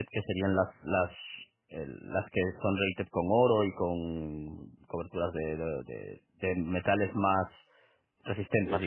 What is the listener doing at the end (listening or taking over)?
listening